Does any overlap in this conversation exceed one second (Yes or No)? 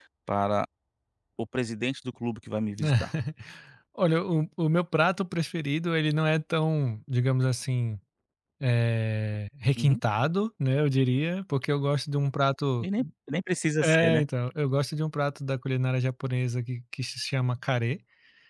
No